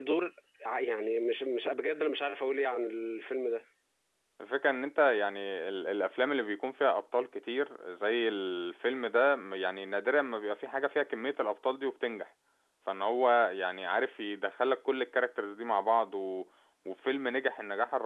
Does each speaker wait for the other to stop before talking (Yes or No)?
Yes